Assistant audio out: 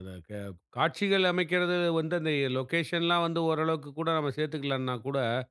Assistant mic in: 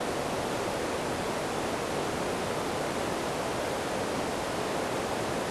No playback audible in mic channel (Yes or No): Yes